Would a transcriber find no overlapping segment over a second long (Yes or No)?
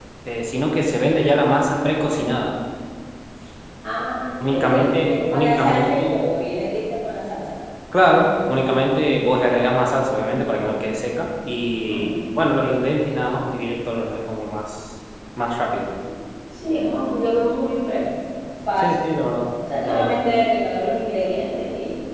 No